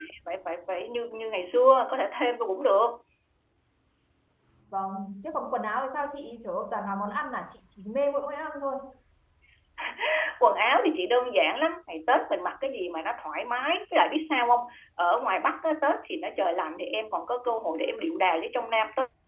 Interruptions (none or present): none